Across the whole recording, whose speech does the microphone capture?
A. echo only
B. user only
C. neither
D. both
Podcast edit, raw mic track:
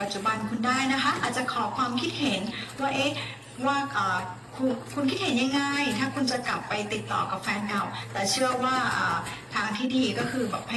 A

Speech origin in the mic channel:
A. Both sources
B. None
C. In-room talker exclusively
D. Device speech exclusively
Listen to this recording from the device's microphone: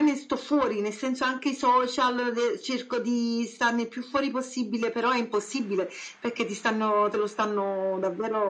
D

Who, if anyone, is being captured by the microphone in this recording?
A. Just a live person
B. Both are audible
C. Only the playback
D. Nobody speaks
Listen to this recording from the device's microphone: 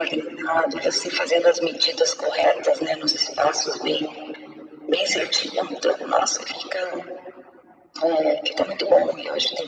C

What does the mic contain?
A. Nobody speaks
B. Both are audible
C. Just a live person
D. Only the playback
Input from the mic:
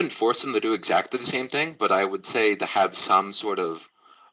D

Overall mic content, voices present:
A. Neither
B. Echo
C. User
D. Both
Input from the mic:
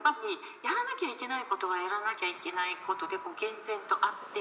B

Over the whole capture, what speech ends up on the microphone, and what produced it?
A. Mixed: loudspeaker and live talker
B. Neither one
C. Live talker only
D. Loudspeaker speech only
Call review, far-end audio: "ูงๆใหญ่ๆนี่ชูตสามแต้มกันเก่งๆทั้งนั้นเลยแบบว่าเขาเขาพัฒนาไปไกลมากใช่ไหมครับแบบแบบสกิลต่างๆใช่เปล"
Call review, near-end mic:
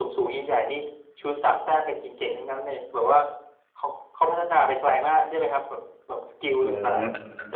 A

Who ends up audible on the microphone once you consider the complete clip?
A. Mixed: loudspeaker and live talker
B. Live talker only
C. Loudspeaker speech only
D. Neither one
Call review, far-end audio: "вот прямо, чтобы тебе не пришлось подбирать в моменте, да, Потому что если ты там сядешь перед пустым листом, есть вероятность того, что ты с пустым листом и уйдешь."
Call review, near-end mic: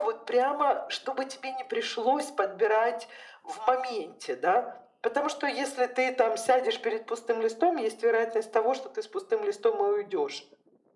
C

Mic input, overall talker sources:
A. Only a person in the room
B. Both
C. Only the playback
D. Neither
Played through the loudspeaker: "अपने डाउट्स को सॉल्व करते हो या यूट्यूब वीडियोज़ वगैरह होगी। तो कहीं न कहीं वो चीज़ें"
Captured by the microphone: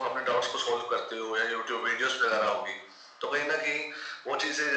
C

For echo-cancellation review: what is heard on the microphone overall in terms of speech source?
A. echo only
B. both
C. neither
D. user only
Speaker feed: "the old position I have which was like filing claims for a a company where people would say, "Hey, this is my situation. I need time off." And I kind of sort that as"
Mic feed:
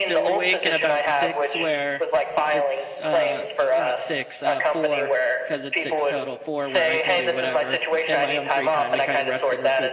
B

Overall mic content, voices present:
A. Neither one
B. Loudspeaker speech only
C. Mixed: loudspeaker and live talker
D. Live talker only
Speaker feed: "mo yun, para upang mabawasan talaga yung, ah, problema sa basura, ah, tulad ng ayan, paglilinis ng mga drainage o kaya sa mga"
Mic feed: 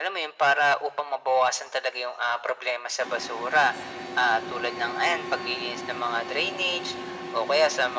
B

